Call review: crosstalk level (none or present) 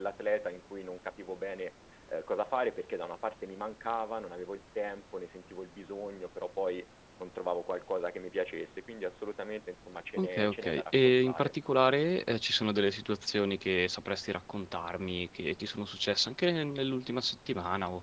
present